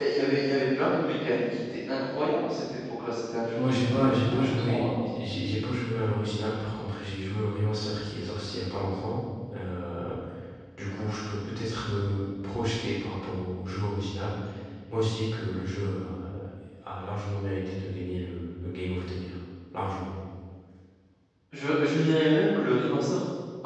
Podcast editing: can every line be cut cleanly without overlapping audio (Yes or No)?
No